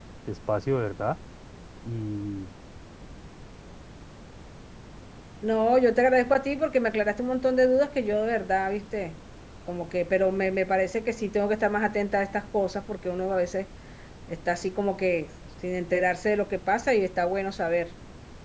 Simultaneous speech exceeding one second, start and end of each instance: none

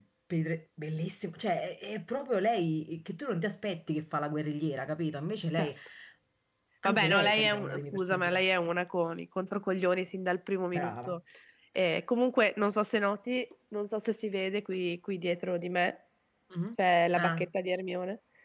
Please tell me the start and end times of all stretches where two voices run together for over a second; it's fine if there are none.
6.8-8.3

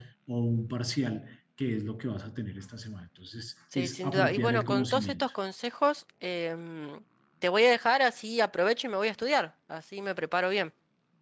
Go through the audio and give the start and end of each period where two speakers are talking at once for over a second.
3.8-5.2

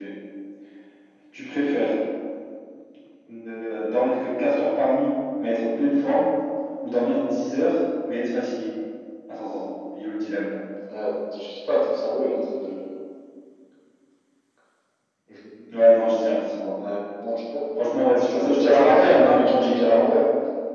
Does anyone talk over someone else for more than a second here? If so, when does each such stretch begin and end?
18.3-19.8

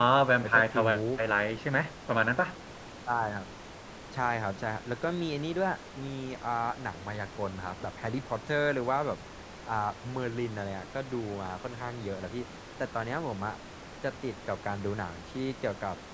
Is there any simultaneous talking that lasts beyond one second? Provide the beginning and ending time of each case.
none

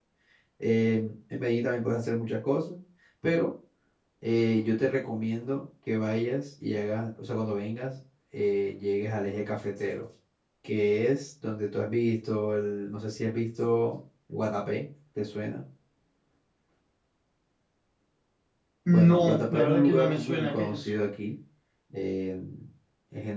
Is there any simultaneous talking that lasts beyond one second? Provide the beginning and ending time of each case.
18.9-20.9

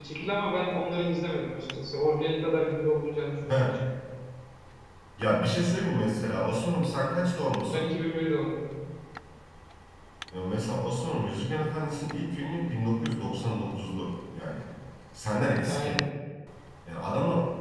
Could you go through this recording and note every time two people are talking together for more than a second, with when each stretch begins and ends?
none

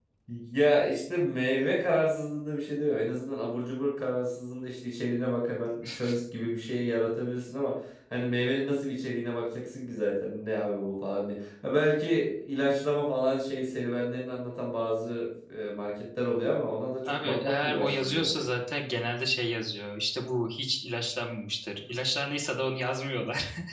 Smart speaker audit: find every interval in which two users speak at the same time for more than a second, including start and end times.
17.1-18.4

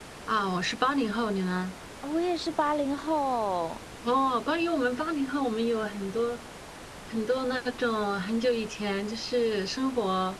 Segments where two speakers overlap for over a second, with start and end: none

